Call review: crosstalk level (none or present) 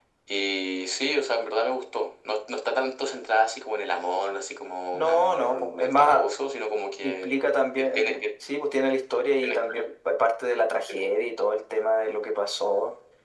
present